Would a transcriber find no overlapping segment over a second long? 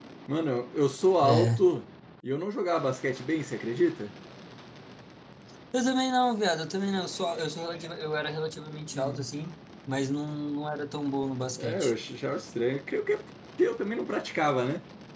Yes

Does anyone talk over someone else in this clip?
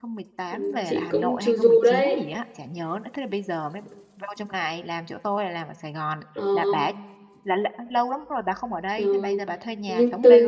Yes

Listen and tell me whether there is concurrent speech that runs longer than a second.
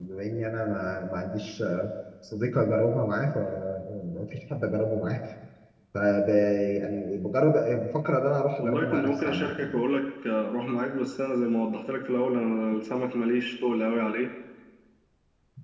Yes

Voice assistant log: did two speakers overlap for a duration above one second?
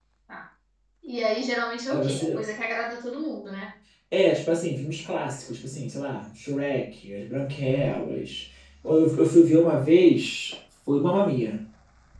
No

